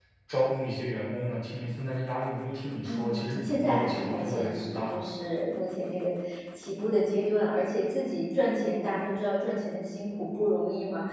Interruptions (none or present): present